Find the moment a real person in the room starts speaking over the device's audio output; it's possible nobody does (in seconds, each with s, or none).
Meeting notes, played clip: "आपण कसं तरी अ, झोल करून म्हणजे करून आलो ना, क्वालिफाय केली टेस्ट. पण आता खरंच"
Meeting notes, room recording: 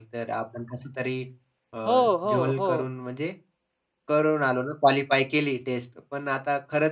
1.9 s